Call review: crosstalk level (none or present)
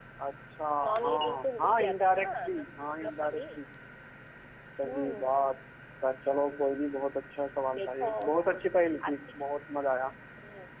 present